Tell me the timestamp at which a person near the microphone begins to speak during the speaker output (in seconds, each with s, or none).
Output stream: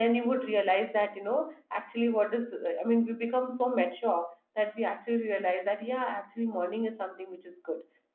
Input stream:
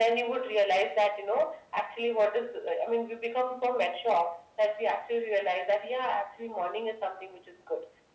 none